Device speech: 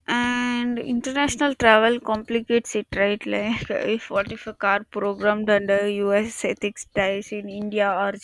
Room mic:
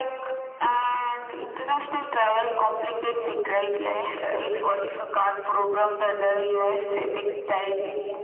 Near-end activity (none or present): none